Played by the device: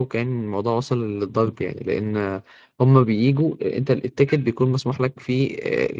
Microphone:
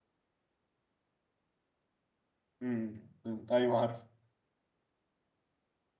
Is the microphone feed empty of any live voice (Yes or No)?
No